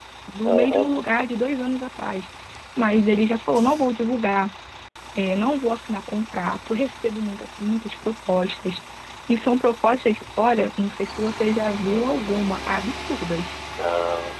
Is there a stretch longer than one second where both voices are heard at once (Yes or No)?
No